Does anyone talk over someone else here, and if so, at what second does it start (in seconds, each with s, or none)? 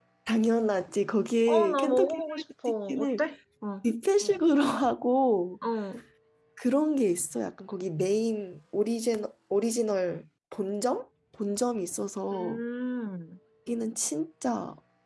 1.5 s